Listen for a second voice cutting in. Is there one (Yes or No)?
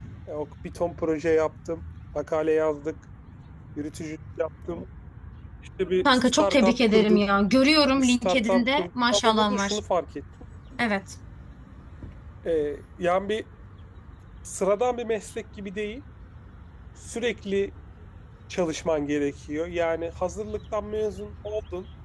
Yes